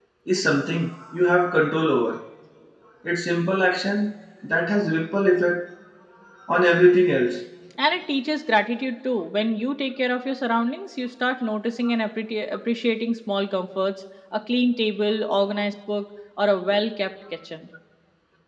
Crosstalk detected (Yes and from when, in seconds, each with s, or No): No